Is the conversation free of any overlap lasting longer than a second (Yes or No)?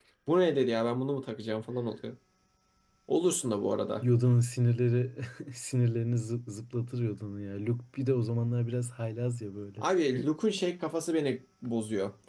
Yes